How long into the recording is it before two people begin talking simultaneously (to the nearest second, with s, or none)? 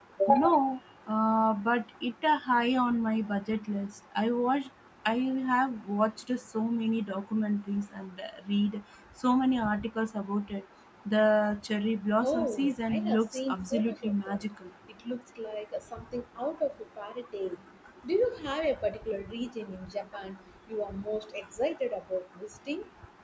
12 s